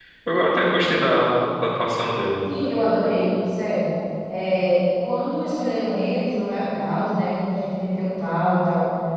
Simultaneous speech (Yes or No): No